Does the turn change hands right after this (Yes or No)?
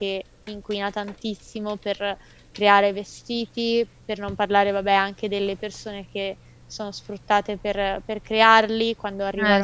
No